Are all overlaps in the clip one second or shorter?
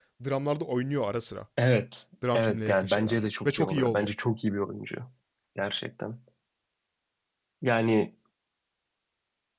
No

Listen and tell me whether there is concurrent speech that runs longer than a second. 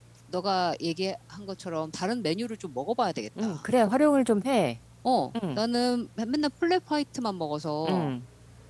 No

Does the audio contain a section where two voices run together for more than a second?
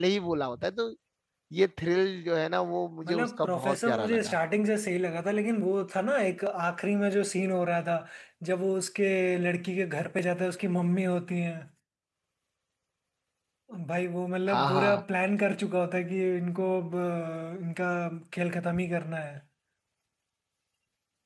Yes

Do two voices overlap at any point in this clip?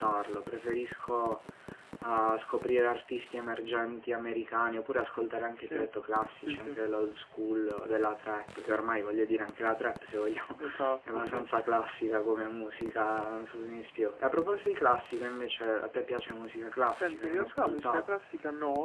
Yes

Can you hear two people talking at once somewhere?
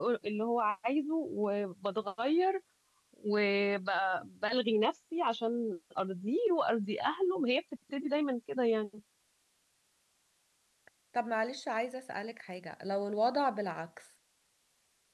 No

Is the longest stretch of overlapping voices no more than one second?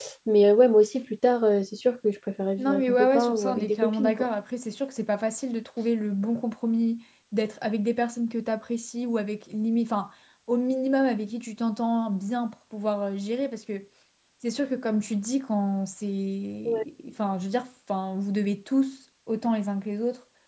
No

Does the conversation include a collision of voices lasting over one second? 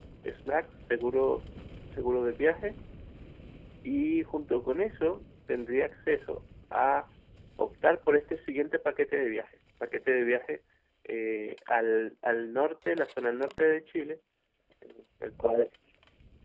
No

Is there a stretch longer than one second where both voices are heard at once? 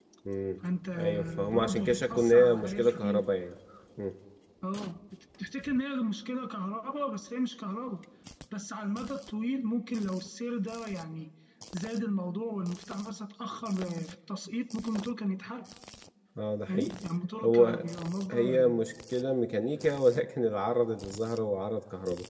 Yes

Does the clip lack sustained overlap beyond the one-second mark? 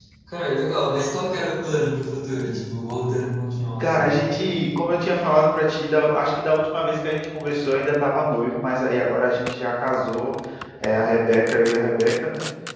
Yes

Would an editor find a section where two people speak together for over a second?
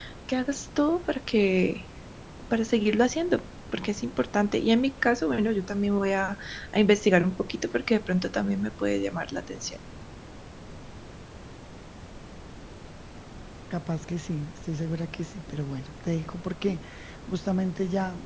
No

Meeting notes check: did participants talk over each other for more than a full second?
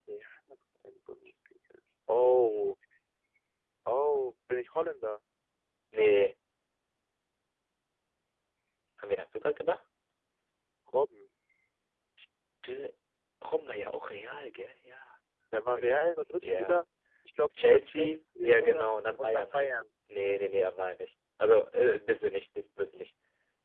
Yes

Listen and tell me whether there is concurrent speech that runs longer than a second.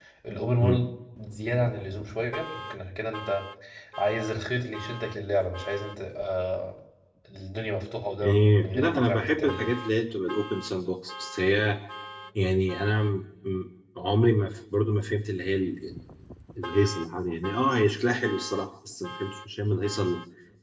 Yes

